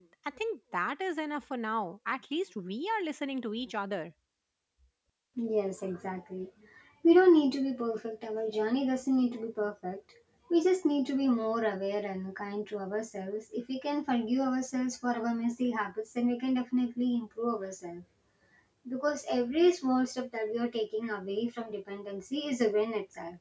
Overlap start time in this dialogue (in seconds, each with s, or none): none